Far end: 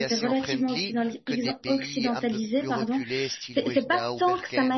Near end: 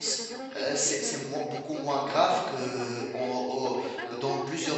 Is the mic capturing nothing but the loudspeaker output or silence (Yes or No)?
No